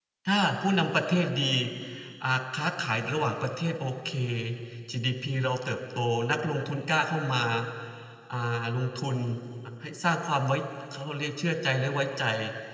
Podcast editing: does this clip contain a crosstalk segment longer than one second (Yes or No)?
No